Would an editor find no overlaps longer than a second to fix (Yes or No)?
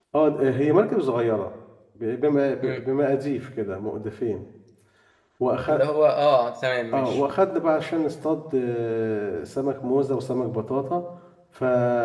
Yes